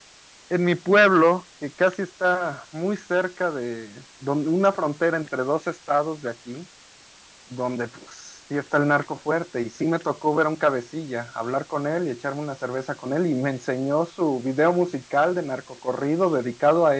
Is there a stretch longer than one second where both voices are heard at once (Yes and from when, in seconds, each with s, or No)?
No